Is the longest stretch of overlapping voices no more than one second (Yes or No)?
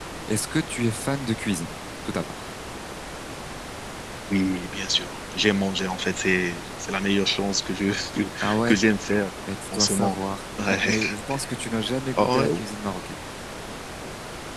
Yes